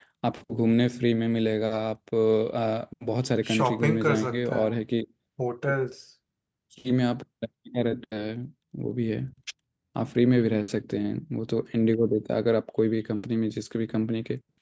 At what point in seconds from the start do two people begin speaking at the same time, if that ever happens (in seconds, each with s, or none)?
3.4 s